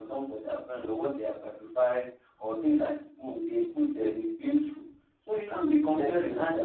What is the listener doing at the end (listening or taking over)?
taking over